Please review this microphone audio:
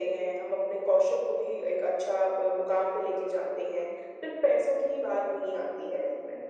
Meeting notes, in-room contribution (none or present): none